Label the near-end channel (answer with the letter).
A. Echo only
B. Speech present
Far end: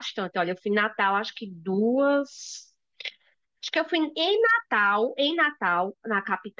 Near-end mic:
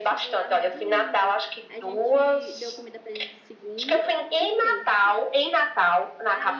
B